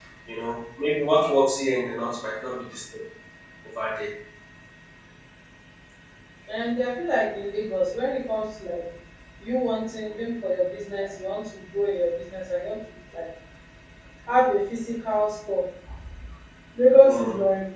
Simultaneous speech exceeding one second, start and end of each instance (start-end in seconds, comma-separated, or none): none